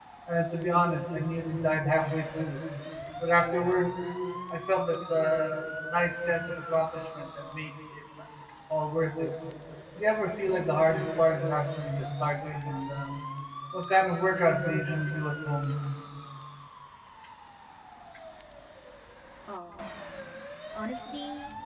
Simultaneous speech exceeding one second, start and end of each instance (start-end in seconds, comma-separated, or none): none